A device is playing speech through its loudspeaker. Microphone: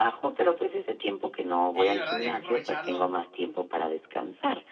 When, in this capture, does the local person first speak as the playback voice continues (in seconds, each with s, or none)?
1.7 s